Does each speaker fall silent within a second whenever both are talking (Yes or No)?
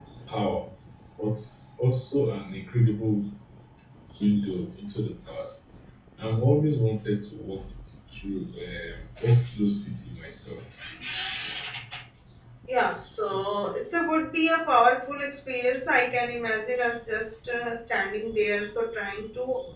Yes